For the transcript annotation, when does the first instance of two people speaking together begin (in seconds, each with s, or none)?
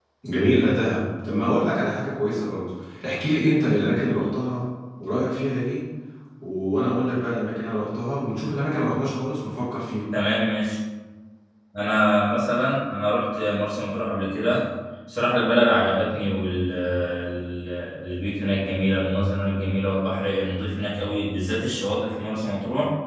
none